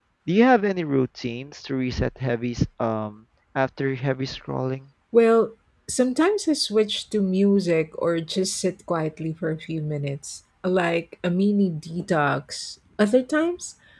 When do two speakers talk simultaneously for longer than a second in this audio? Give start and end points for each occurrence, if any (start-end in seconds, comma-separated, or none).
none